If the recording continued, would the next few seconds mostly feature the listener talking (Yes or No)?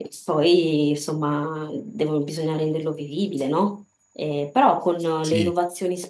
No